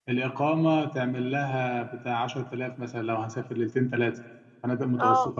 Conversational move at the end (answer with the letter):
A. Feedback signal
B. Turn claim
B